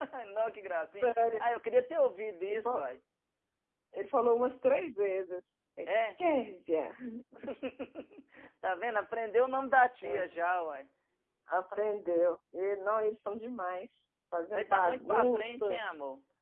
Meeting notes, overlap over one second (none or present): present